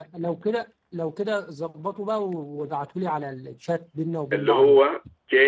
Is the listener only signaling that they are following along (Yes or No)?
No